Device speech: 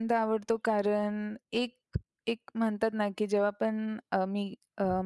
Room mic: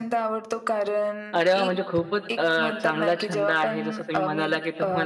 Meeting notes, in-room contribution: present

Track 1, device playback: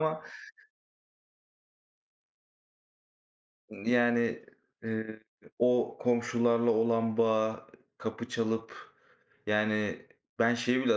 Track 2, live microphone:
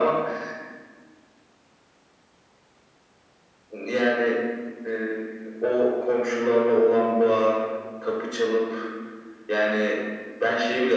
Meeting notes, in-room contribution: none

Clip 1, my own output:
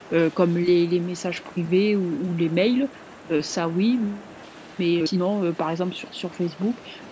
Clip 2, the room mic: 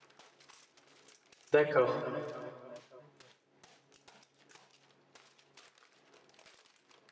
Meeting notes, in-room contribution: present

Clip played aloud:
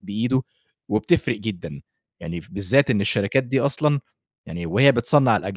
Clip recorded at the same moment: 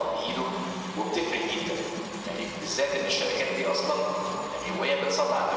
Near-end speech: none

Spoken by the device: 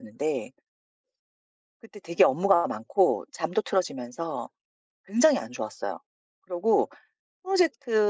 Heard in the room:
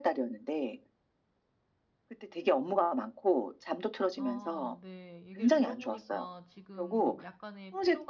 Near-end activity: present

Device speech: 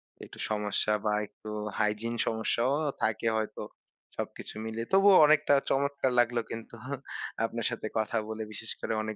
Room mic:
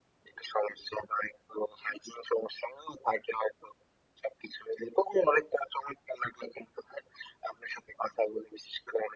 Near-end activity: none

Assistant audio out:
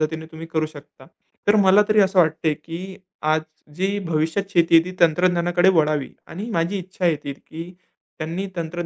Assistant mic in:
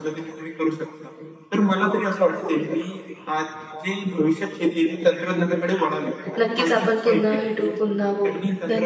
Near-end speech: present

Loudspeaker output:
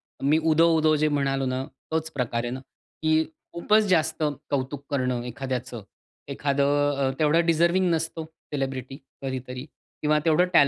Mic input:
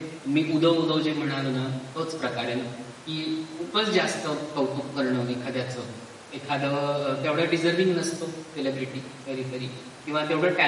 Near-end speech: none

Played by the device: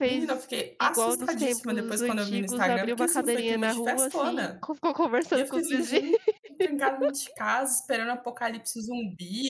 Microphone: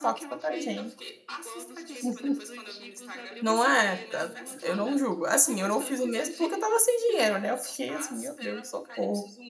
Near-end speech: present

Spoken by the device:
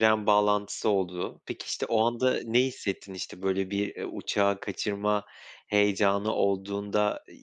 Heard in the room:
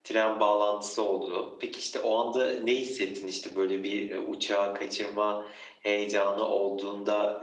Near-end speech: none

